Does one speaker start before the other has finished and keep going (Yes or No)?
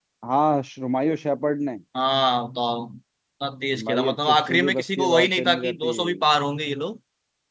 Yes